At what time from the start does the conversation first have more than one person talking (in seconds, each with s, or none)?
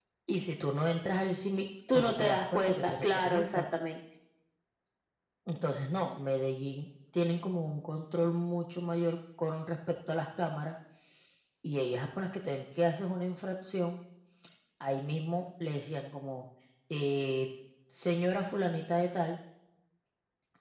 1.9 s